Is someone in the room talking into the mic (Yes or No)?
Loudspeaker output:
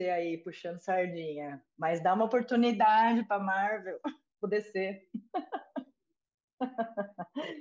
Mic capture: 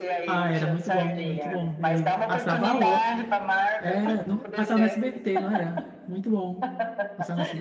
Yes